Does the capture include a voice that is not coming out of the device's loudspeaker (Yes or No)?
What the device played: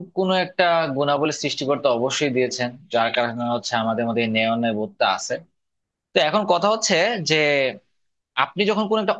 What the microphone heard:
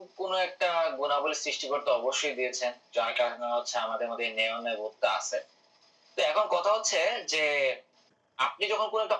No